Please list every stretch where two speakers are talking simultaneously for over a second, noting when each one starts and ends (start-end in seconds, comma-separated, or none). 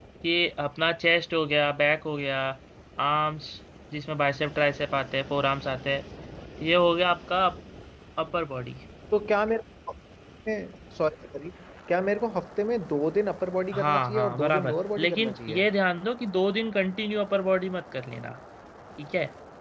13.7-15.7